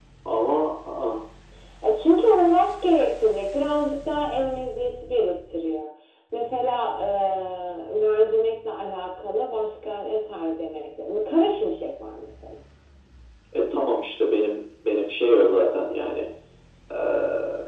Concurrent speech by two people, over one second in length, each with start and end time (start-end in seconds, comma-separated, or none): none